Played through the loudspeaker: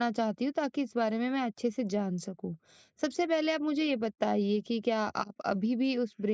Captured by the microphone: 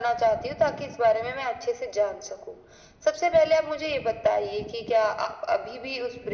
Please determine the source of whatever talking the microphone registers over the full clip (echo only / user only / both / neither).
echo only